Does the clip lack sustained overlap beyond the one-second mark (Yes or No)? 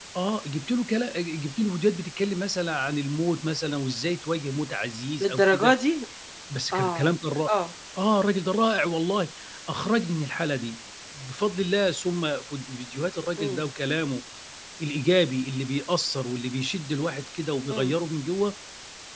Yes